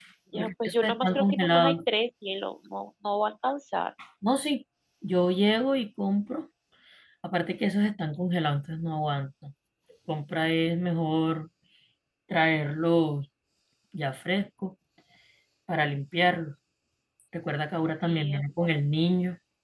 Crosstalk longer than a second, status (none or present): present